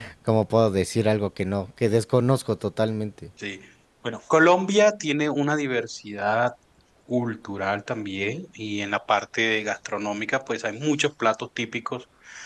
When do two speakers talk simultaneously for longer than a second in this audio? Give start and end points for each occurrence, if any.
none

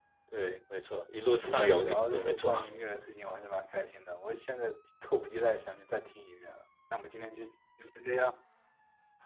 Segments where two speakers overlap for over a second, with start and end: 1.4-2.6

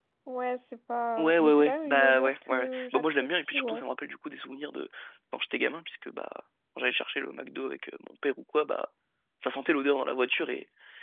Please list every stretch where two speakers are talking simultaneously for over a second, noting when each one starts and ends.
1.2-3.8

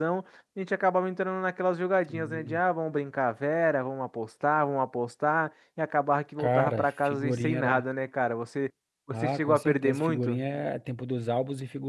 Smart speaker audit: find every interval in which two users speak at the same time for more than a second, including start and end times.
6.4-7.8, 9.1-10.4

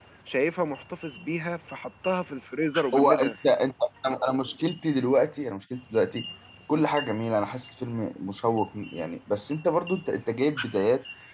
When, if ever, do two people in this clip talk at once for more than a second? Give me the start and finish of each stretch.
none

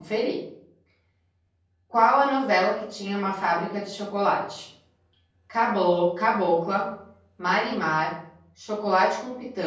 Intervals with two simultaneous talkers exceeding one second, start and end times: none

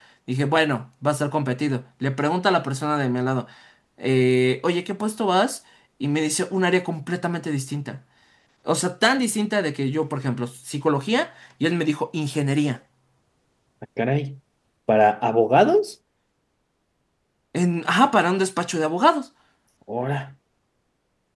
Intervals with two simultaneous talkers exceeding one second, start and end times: none

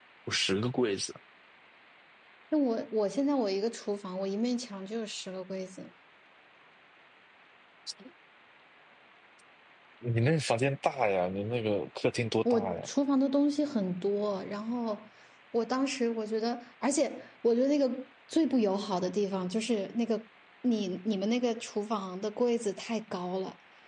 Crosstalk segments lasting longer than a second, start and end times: none

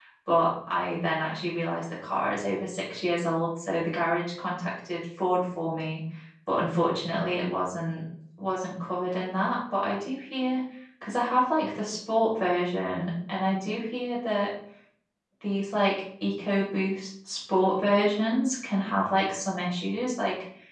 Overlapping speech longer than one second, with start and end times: none

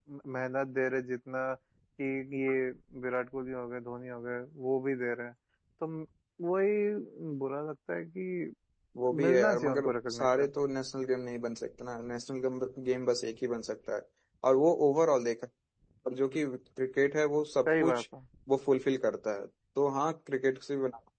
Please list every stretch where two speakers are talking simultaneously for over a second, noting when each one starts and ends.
9.2-10.5

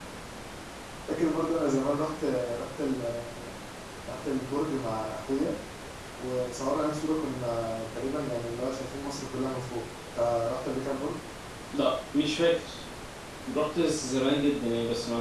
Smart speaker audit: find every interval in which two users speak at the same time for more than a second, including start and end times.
none

